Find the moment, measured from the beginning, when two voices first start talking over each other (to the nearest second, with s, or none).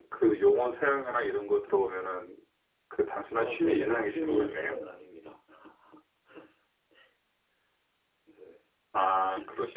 3 s